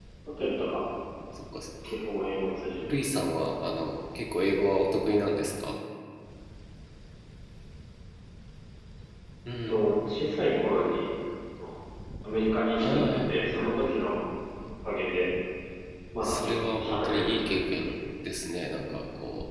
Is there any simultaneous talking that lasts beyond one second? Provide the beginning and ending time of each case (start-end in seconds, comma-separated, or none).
16.2-17.5